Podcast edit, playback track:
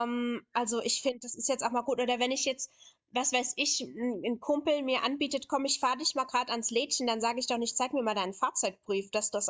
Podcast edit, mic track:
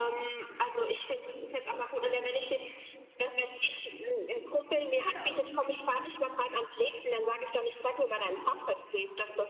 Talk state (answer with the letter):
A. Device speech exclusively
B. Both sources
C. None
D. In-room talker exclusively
B